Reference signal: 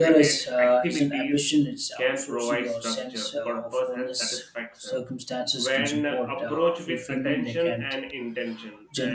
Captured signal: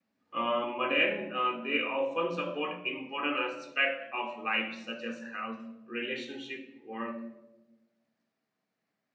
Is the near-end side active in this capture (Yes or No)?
Yes